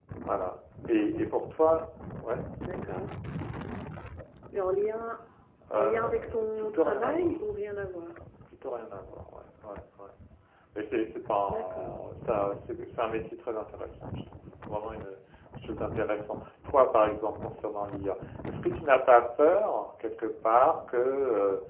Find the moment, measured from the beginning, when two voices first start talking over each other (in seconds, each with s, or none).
5.7 s